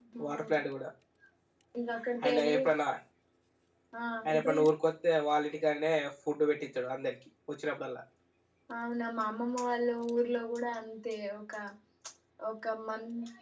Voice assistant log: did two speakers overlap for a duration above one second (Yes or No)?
No